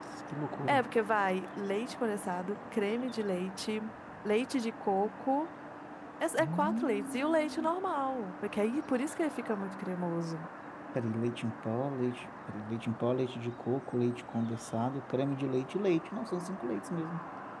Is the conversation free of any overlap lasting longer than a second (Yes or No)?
No